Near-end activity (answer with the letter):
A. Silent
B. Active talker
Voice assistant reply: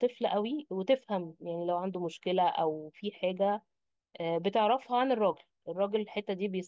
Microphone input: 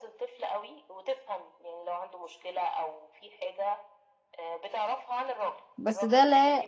B